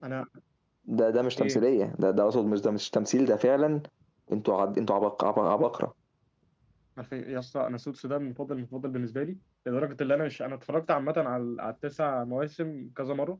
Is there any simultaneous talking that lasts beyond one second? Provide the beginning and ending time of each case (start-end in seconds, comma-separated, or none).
none